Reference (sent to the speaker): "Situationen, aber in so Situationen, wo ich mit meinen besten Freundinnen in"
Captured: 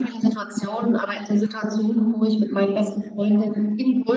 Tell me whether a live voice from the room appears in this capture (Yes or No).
No